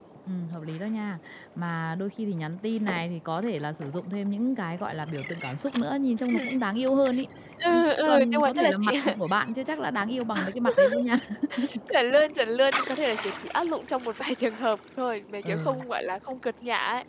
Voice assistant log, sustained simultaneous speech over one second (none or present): present